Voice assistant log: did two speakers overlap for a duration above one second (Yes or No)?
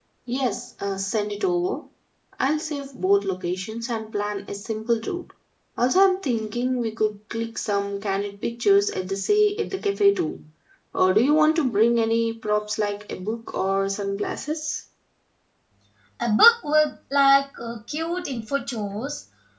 No